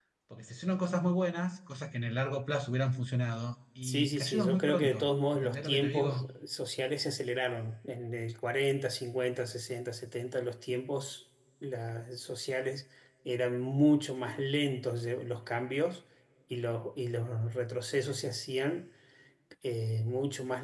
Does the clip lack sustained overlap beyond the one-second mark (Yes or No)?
No